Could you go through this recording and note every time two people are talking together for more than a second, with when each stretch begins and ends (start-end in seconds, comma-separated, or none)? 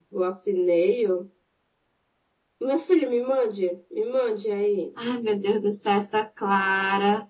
none